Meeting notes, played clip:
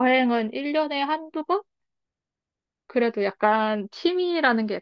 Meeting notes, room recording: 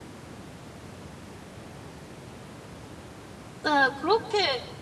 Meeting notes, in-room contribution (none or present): present